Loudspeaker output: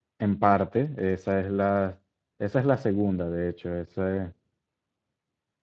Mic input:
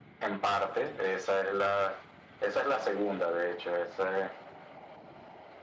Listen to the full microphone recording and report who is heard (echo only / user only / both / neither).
echo only